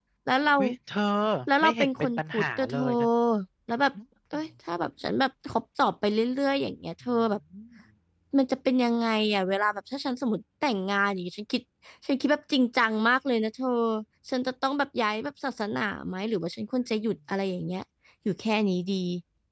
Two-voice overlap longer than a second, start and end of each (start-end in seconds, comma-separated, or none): 1.6-2.9